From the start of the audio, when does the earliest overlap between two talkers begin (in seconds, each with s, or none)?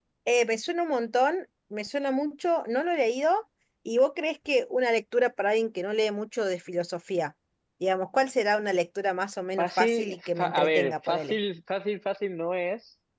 9.6 s